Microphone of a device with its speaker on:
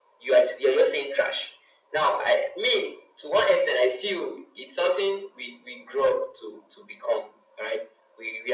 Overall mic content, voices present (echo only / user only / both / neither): echo only